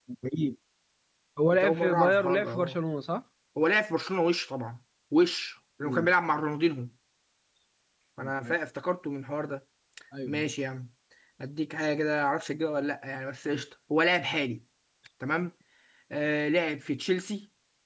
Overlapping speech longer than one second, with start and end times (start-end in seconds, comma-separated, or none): 1.5-2.8